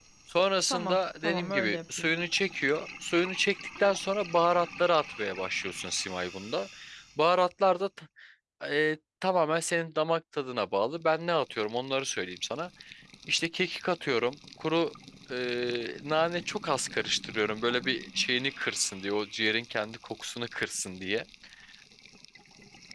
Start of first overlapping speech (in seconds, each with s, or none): 0.7 s